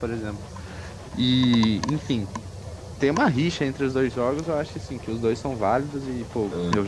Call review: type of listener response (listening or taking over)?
listening